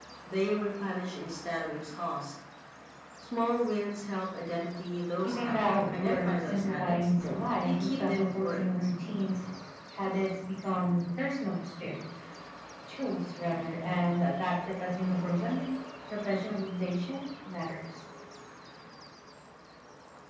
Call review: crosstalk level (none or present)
present